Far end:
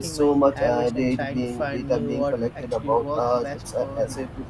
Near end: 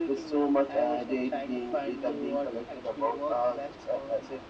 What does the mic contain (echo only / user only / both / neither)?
echo only